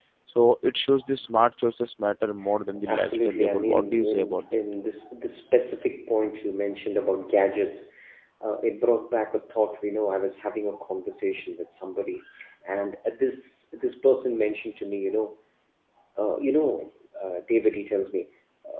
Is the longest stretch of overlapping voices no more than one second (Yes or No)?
No